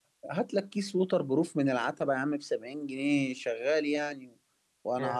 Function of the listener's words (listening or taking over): listening